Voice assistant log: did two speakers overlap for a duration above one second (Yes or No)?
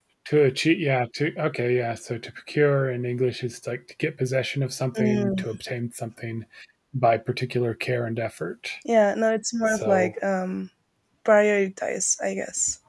No